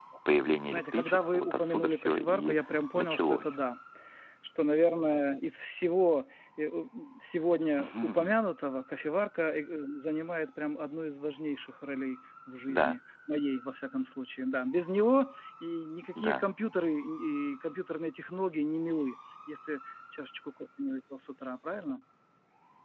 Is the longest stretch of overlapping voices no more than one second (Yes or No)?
No